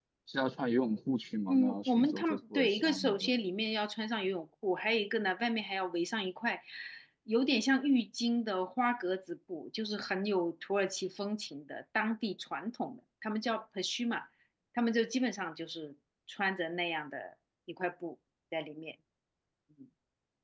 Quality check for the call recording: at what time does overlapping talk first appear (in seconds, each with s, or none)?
1.5 s